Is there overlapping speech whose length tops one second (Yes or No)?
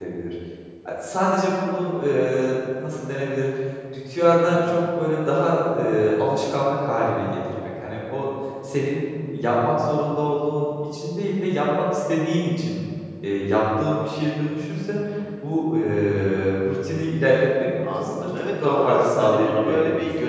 Yes